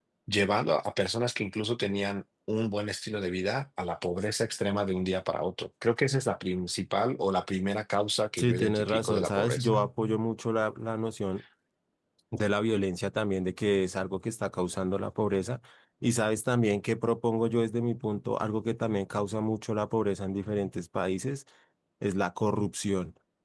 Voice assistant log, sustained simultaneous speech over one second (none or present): present